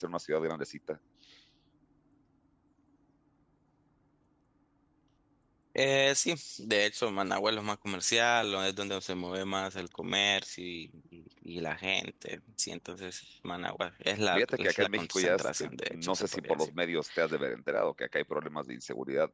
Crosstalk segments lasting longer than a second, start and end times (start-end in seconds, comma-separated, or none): 14.3-16.7